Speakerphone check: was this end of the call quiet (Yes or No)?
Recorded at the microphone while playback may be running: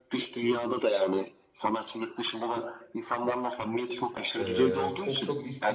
No